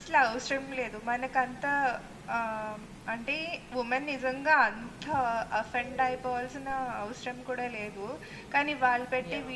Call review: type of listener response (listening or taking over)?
listening